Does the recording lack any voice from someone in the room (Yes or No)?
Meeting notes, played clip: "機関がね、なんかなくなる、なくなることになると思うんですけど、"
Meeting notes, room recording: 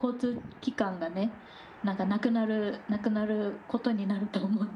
Yes